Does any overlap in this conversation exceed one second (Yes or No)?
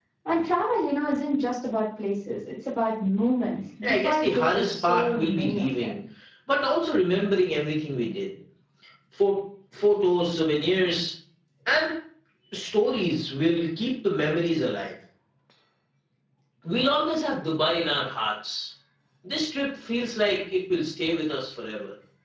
Yes